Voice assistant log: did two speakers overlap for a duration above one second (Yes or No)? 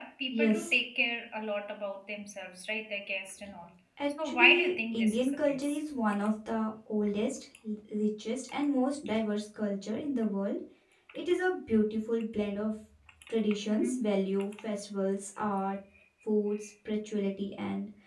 Yes